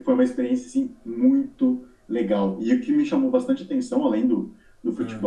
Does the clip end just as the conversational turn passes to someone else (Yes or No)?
No